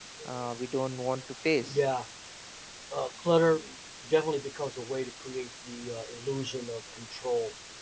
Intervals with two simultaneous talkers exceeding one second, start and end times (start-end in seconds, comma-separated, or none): none